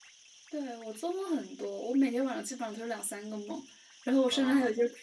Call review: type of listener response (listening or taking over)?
listening